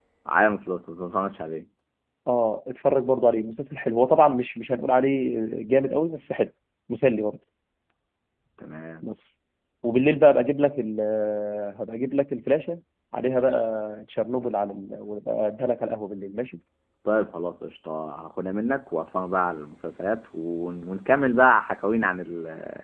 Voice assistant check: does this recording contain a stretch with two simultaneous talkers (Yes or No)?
No